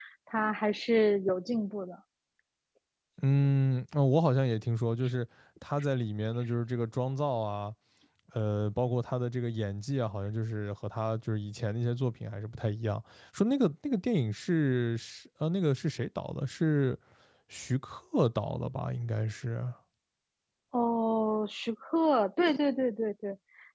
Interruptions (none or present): none